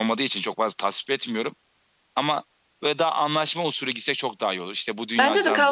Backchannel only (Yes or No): No